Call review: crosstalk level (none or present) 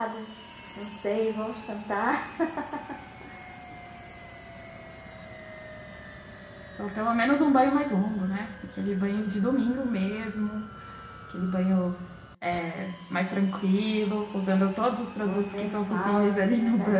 present